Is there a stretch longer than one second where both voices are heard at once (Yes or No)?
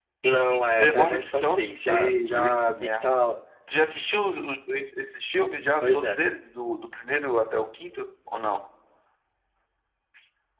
Yes